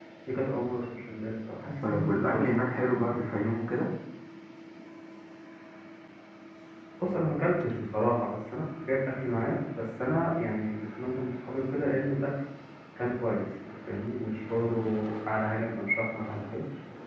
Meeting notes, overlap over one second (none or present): present